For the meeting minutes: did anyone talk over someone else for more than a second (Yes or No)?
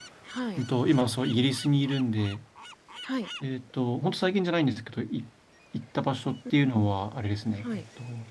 No